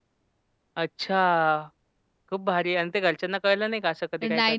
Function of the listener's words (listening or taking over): taking over